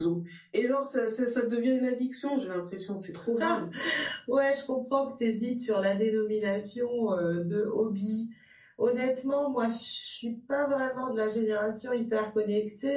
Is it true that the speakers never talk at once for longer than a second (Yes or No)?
Yes